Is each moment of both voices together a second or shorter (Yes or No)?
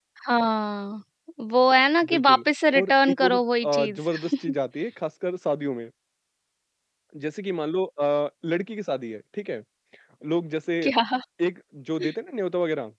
No